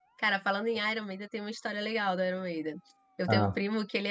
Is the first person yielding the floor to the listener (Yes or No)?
No